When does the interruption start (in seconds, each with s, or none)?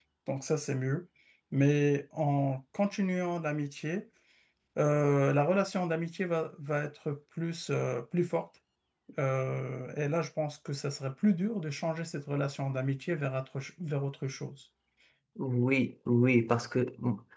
none